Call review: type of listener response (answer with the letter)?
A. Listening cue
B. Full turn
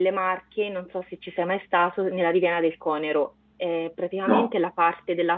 A